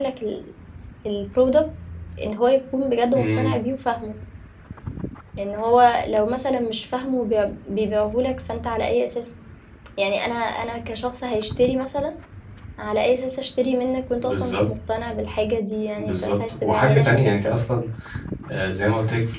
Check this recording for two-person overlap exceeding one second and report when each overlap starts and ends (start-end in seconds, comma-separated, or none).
16.0-17.5